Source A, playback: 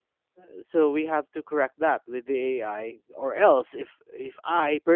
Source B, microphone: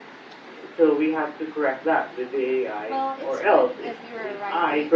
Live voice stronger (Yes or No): No